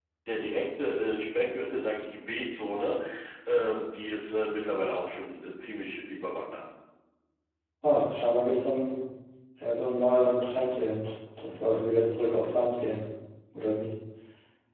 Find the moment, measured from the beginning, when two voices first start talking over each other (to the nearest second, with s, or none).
none